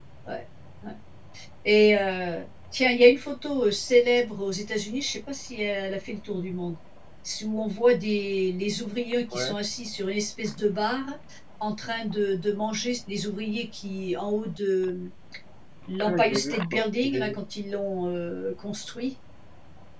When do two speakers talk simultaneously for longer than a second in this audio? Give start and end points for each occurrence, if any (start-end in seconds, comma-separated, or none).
16.1-17.4